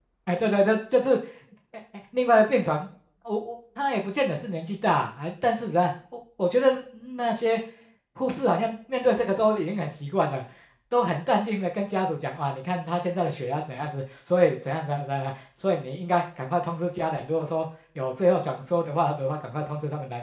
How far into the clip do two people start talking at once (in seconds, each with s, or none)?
none